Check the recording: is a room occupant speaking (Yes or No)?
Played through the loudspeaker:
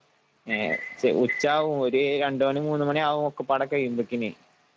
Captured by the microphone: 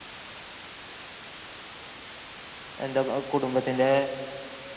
Yes